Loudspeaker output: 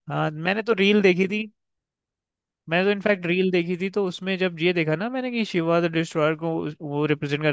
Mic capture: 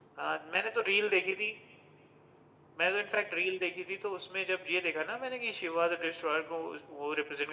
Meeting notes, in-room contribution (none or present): none